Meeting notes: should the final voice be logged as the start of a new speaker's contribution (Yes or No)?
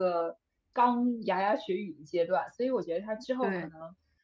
No